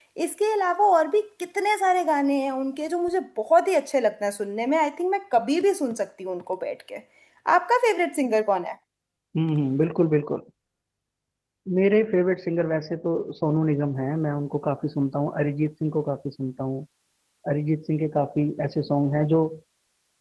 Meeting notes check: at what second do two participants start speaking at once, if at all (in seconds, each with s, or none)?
none